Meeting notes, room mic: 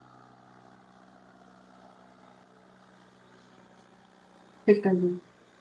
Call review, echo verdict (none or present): none